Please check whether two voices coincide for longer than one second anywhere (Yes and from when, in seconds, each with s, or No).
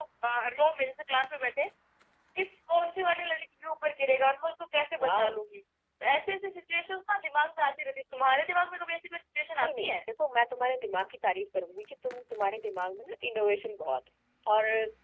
No